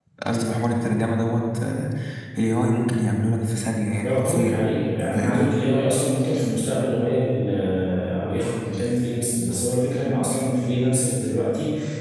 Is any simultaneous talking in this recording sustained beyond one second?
No

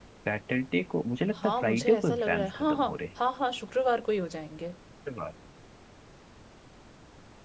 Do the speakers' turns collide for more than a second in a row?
Yes, from 1.4 s

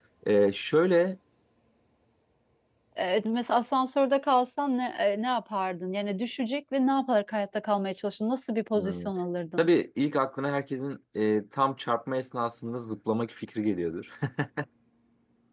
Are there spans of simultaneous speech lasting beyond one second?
No

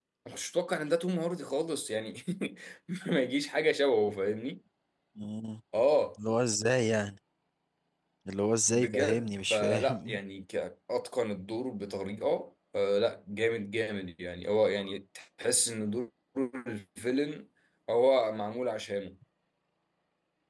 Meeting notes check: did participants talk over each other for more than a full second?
Yes, from 8.7 s

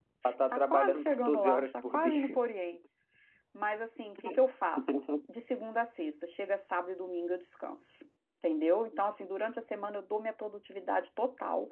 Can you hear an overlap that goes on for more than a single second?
Yes, from 0.5 s

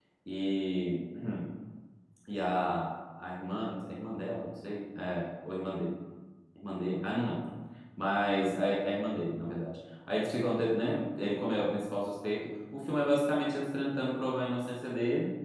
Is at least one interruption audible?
No

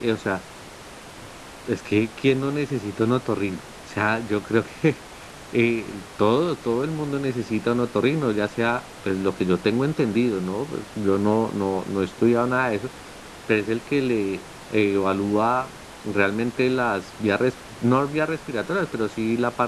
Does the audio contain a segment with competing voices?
No

